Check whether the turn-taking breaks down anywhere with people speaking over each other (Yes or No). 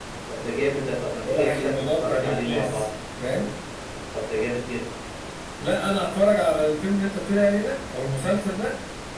Yes